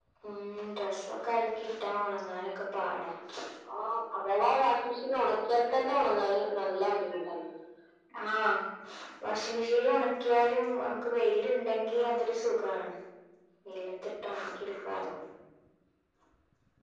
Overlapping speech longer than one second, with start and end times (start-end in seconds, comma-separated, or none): none